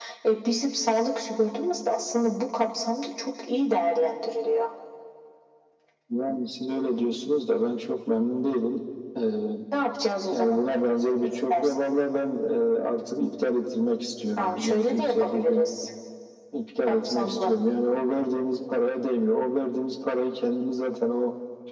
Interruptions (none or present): present